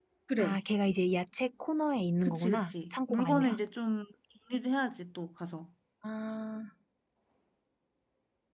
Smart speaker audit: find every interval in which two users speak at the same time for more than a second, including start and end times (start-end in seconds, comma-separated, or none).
2.2-3.6